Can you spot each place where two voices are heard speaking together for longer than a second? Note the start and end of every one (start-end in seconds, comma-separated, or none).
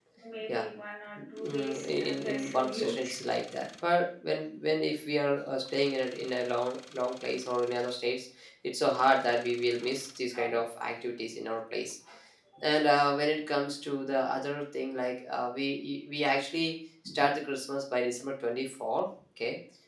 1.2-3.1